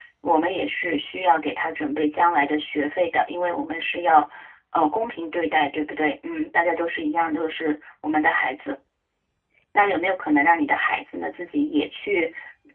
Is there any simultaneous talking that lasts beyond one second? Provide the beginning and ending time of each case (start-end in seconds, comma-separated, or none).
none